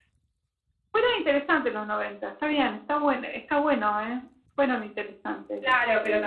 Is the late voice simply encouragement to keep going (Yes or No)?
No